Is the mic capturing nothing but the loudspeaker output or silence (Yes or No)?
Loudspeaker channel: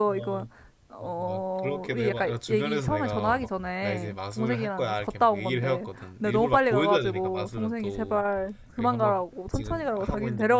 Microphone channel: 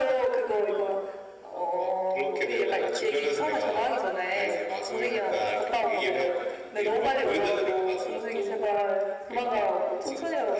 Yes